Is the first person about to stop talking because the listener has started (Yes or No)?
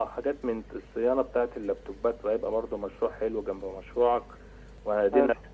No